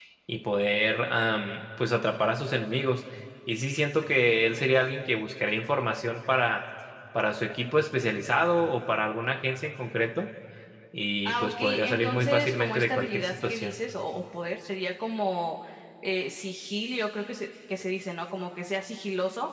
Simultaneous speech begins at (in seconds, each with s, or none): 11.2 s